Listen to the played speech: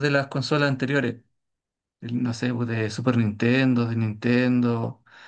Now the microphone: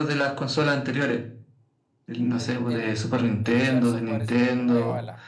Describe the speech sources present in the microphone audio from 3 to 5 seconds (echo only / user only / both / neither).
both